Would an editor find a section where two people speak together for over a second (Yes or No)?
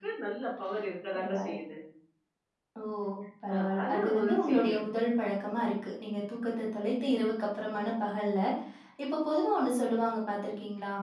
Yes